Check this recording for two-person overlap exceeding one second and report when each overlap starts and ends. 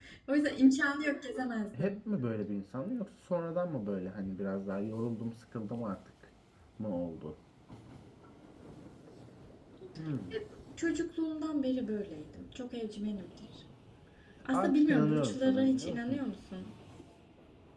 14.5-16.2

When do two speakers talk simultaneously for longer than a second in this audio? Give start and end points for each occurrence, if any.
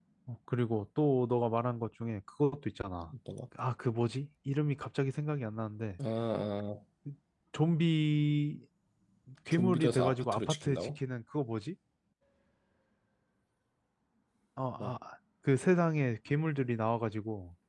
9.5-11.0

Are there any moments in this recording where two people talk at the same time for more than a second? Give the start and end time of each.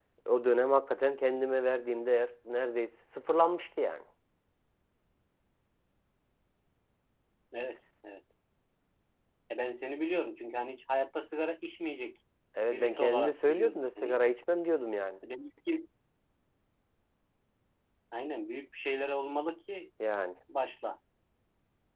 12.7-14.2

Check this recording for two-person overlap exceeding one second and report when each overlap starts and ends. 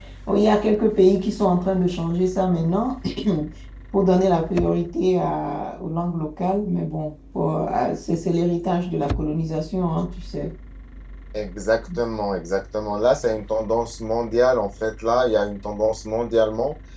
none

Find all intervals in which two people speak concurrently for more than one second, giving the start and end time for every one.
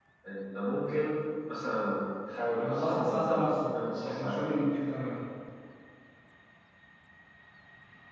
2.6-4.5

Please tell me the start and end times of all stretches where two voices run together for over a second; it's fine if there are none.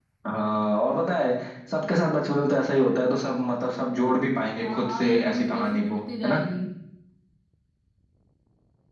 4.6-6.4

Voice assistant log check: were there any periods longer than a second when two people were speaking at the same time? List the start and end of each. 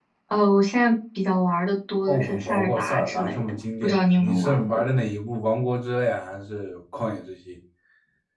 2.1-4.8

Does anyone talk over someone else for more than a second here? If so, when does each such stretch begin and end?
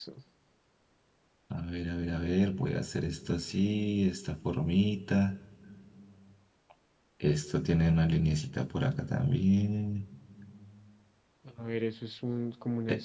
none

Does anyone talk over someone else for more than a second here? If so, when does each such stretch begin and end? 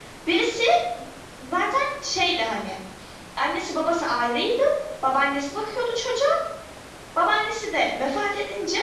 none

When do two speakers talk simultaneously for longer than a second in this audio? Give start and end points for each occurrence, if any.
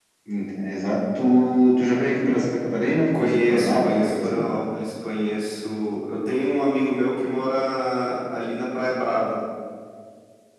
3.2-4.4

